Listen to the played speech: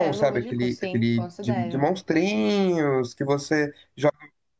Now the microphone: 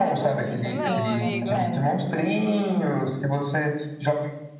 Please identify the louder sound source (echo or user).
echo